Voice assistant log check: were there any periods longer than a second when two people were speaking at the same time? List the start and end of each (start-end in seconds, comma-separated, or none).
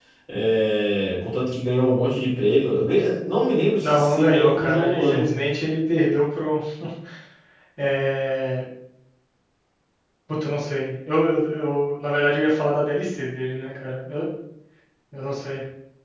3.8-5.3